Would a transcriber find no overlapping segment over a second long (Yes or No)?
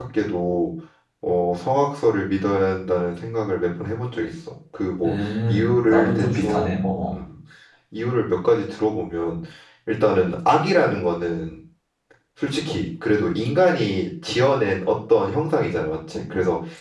No